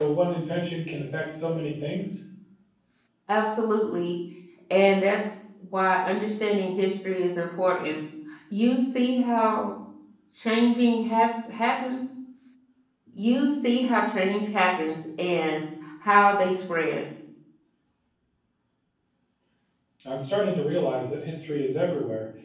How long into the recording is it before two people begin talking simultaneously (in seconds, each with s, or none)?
none